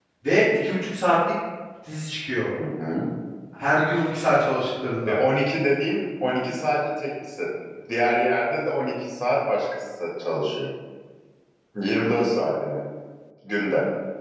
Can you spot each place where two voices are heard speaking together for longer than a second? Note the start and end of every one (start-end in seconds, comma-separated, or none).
none